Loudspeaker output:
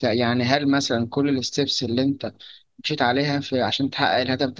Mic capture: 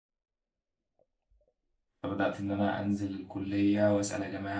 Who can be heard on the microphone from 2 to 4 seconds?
user only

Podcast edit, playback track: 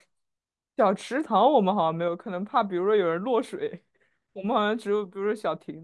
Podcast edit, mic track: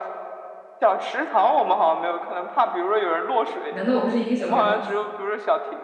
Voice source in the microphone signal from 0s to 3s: echo only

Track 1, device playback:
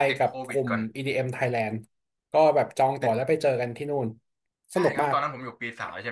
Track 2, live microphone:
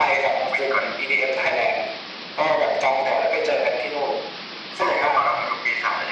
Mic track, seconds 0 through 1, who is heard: echo only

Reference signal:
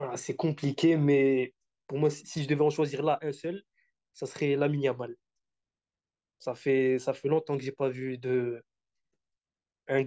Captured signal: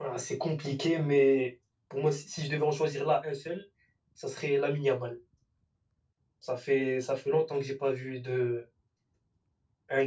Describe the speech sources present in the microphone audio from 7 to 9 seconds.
echo only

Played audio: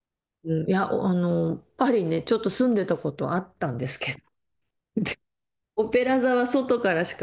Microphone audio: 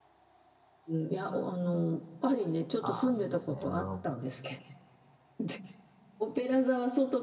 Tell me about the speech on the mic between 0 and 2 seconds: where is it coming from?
echo only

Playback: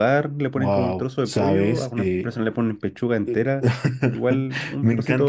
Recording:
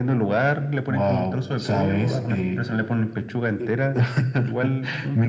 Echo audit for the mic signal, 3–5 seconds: echo only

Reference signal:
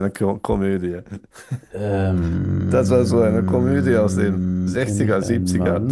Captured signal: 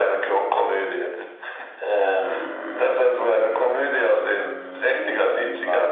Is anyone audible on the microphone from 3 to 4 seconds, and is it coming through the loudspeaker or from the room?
echo only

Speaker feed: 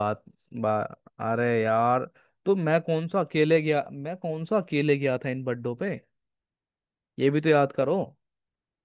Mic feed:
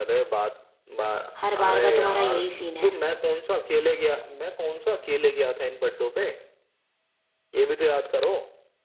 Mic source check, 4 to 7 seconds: echo only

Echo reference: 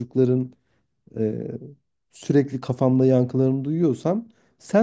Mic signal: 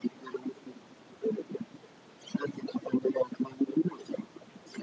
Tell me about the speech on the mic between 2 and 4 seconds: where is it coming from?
echo only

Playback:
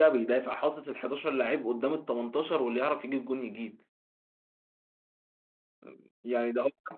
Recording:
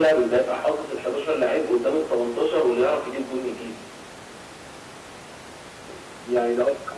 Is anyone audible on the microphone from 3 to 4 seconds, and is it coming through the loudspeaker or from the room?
echo only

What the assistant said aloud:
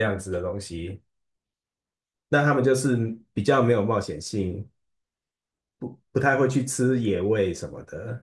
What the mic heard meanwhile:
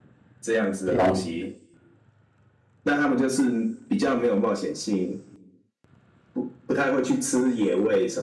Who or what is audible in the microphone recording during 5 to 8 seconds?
echo only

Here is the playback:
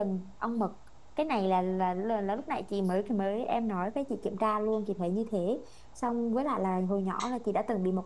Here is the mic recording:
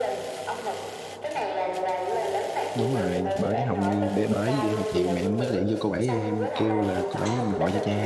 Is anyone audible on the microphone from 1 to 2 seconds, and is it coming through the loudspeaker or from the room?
echo only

